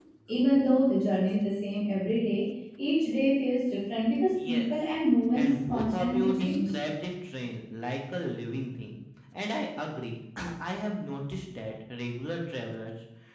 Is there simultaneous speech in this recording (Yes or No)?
Yes